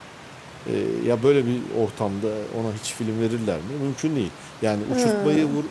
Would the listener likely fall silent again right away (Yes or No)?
Yes